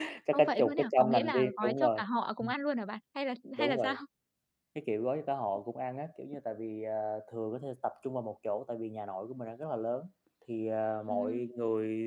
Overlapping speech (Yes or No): Yes